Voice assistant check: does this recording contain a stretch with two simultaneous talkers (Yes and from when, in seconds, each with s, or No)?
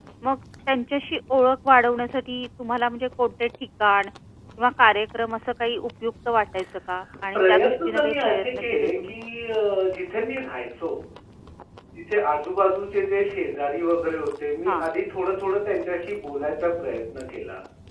Yes, from 7.3 s